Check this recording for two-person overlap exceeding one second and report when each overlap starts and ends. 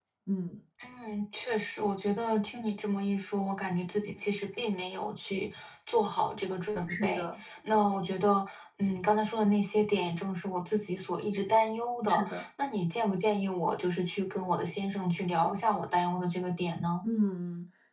none

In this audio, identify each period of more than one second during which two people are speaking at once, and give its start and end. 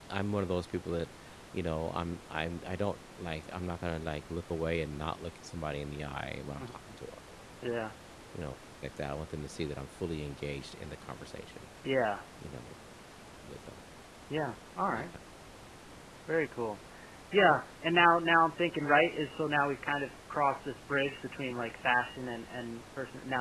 none

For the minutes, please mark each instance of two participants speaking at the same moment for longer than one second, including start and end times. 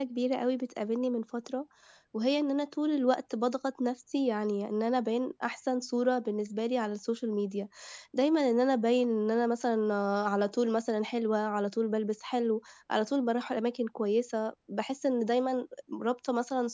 none

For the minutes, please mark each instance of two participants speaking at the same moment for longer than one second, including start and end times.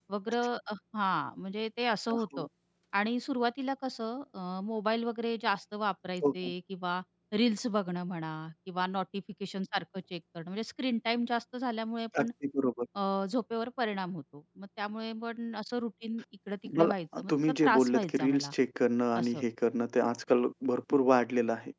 16.8-18.5

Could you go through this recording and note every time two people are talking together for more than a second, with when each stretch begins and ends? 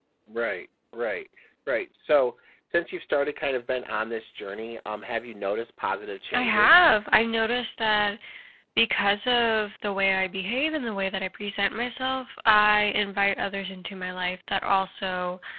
none

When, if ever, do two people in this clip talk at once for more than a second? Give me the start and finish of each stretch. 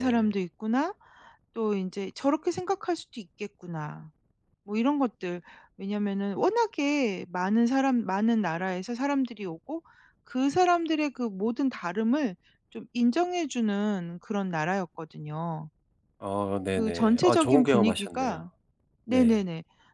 16.8-18.4

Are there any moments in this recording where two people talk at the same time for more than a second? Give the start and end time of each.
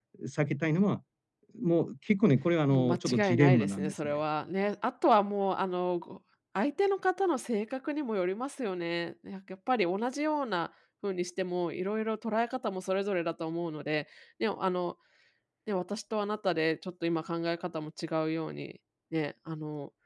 2.7-4.2

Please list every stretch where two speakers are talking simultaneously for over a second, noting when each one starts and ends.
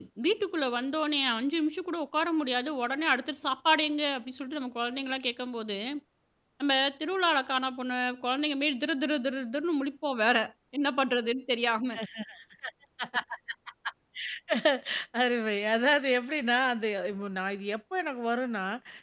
none

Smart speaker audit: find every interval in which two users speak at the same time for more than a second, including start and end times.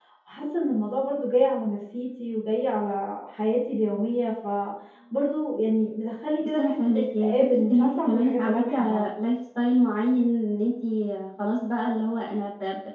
6.4-9.1

